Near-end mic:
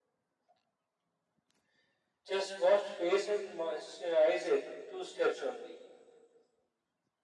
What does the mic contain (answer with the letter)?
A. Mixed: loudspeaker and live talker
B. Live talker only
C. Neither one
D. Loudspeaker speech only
D